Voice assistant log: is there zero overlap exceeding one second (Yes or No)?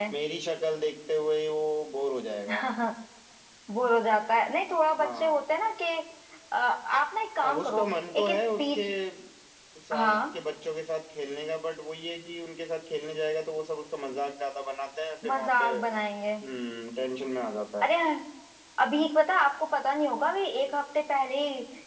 No